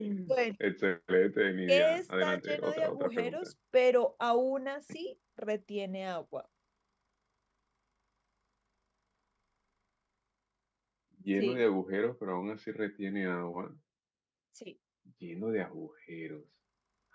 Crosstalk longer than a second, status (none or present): present